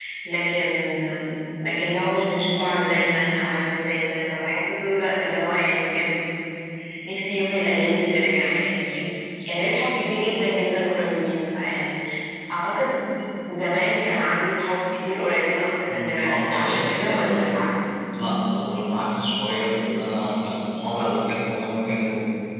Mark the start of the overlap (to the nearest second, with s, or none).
16 s